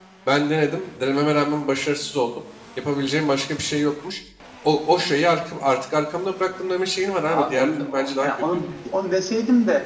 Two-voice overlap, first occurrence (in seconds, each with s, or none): 7.2 s